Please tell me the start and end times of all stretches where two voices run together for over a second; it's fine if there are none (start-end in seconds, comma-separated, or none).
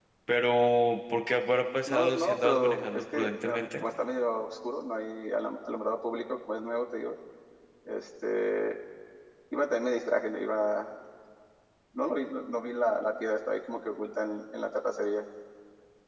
1.8-3.8